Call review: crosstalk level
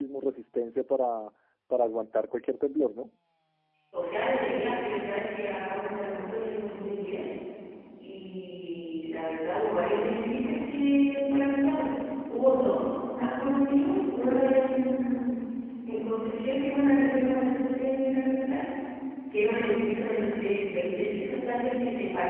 none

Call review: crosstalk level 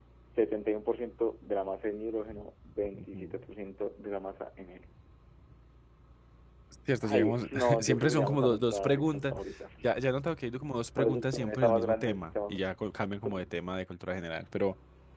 present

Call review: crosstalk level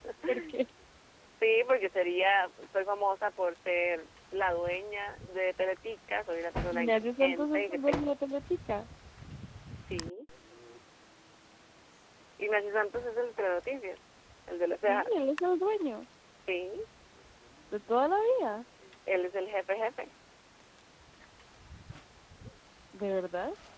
present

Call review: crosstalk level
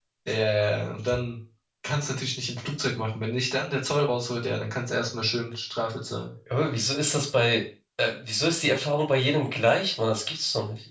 none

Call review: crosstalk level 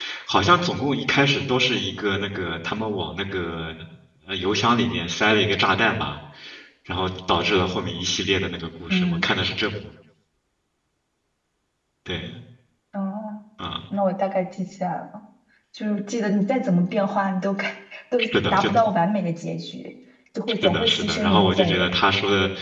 present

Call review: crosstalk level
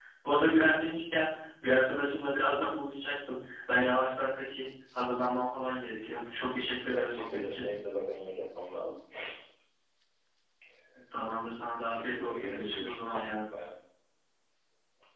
present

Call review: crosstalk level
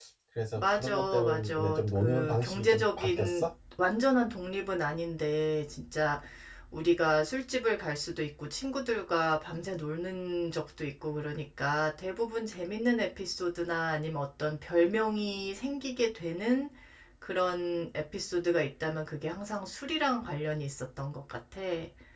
present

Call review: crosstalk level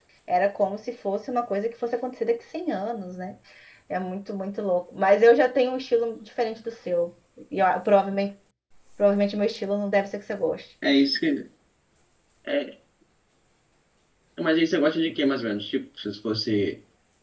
none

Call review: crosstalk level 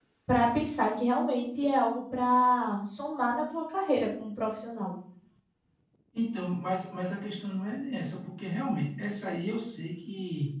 none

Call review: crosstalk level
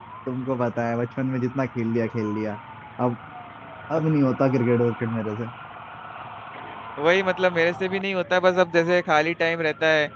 none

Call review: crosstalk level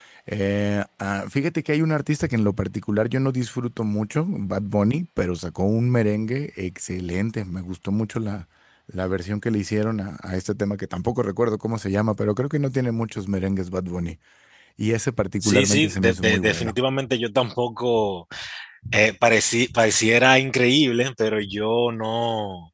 present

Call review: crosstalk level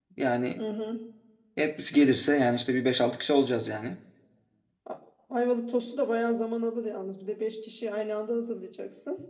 none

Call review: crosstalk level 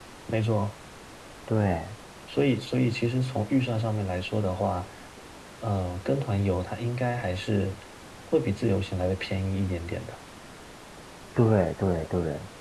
none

